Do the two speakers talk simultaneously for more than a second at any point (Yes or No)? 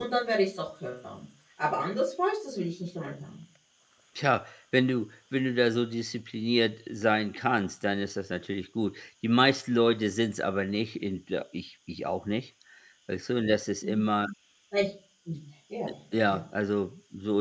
No